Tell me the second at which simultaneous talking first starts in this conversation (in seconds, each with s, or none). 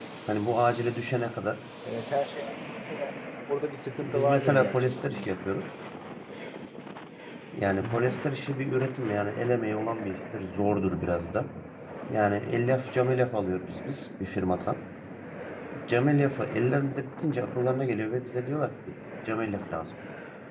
3.9 s